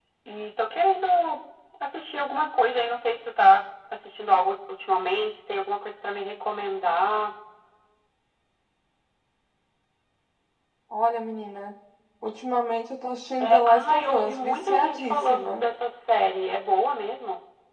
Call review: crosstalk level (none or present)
present